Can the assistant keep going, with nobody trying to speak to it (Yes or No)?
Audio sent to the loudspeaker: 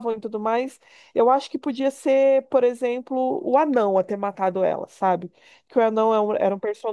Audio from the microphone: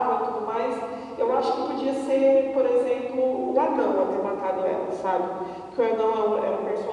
Yes